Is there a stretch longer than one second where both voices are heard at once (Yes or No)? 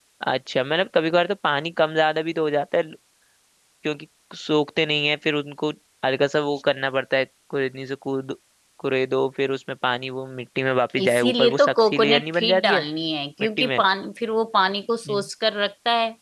Yes